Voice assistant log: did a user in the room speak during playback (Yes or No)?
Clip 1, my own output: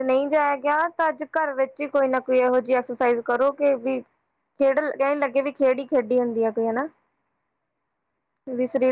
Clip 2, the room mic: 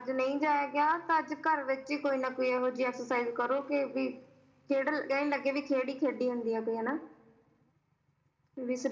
No